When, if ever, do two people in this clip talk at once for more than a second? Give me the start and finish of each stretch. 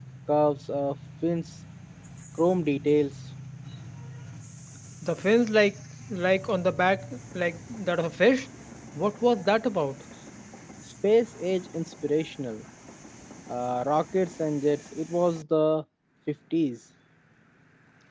none

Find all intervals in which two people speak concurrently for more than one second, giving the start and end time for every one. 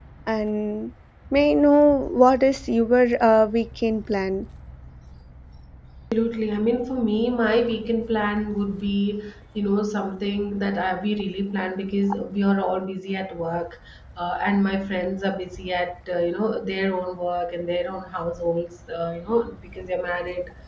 none

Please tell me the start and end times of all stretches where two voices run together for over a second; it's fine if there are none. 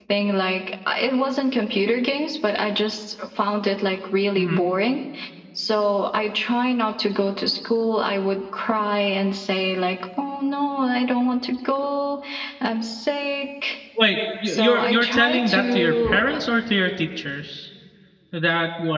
14.4-16.3

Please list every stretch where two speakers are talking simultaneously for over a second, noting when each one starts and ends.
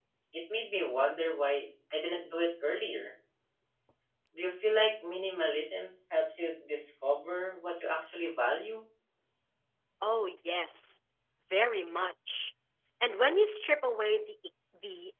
none

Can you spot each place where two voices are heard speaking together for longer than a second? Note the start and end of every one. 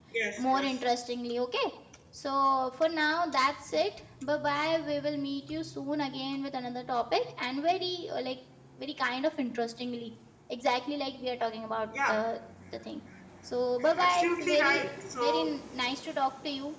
13.9-15.4

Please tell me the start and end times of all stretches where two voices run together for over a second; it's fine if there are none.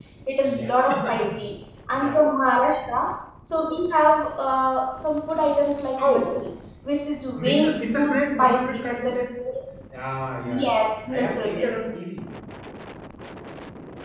7.4-9.1, 10.4-11.7

